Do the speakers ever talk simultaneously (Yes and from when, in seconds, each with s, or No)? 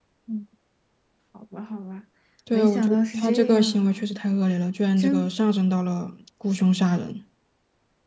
Yes, from 2.5 s